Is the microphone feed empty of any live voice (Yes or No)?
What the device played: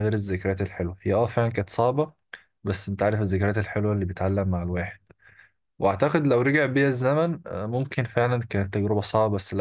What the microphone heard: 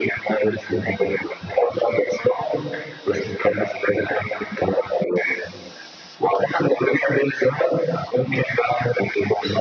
Yes